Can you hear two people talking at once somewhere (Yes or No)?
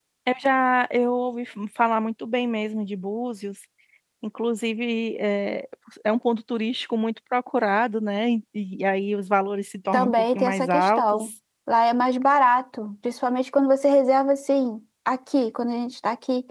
Yes